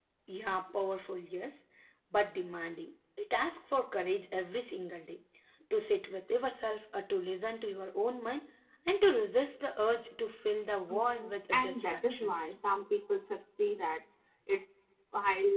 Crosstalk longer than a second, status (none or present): present